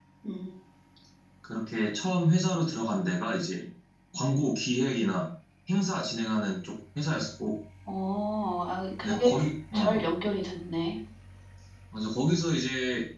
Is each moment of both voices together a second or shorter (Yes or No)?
Yes